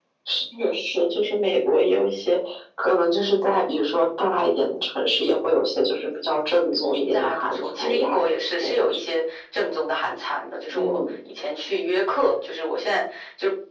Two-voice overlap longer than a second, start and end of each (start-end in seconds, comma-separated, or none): 6.7-9.0